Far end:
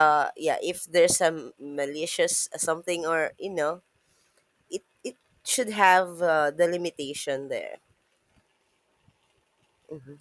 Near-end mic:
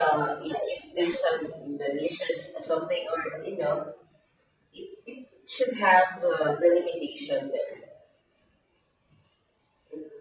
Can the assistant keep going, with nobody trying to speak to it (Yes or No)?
Yes